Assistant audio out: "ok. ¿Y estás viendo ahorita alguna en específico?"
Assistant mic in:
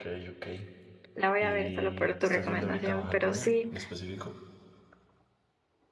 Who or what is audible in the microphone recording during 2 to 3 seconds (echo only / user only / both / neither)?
both